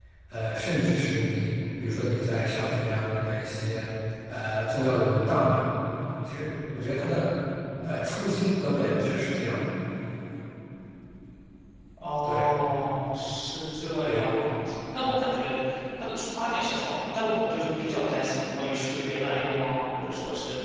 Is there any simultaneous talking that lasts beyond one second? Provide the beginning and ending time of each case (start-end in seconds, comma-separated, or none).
none